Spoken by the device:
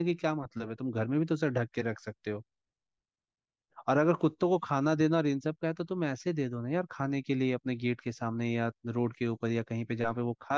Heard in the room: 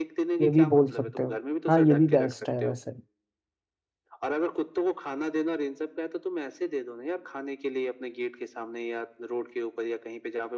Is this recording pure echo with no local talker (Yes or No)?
No